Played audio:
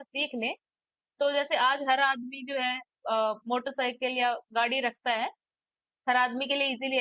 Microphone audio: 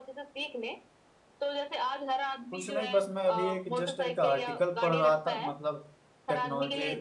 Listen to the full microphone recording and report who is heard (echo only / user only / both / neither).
both